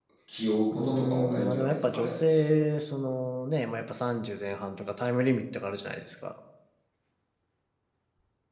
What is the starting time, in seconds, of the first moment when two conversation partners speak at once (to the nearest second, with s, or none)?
1 s